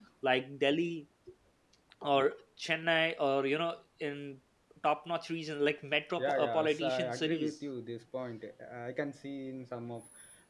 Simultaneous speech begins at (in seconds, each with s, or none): 6.2 s